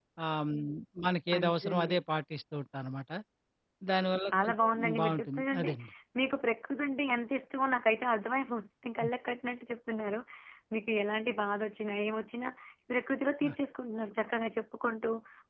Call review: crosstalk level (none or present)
present